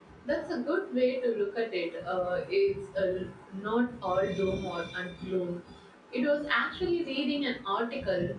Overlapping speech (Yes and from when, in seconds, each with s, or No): No